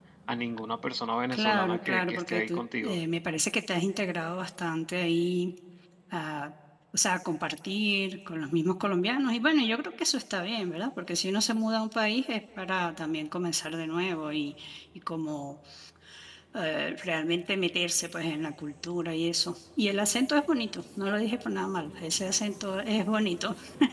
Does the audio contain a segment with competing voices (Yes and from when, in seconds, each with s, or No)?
Yes, from 1.3 s